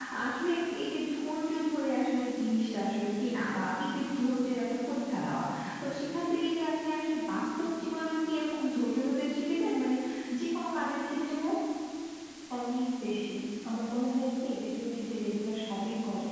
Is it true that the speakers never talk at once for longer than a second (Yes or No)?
Yes